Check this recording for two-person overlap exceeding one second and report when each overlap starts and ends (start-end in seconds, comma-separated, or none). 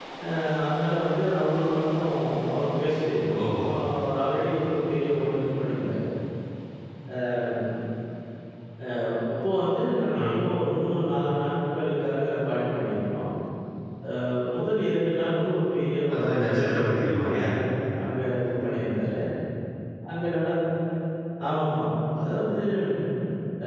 16.1-17.5